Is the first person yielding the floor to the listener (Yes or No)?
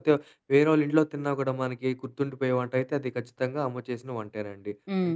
No